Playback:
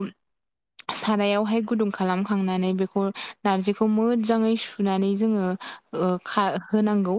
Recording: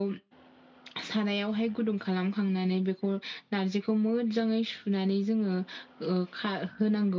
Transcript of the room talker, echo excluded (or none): none